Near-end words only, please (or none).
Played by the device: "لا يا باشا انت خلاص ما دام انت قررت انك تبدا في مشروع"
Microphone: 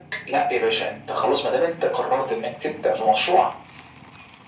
none